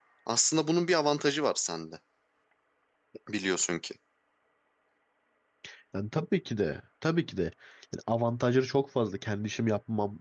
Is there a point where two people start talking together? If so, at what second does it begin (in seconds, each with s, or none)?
none